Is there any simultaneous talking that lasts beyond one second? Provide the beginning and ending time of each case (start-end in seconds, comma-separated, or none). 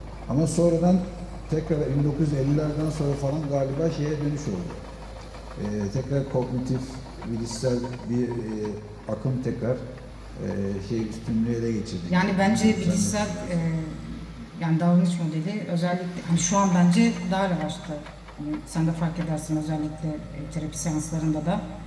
12.1-13.5